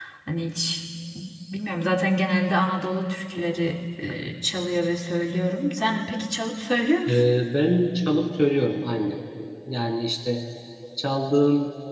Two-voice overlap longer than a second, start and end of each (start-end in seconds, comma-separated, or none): none